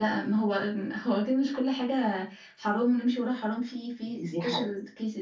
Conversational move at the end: taking over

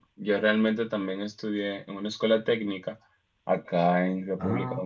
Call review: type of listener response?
listening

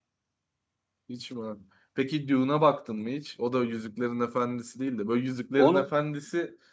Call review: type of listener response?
listening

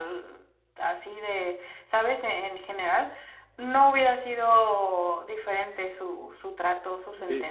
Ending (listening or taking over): taking over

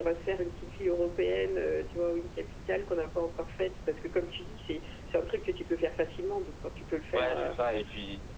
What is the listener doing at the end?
taking over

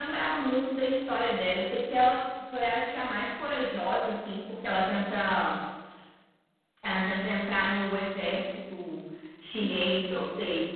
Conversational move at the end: taking over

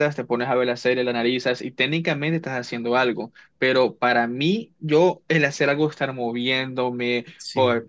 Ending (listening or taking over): listening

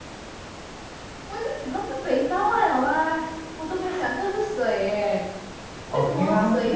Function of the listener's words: listening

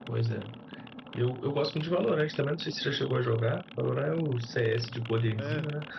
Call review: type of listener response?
taking over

